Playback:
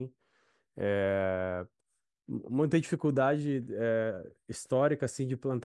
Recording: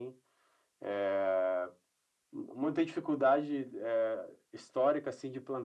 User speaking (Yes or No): No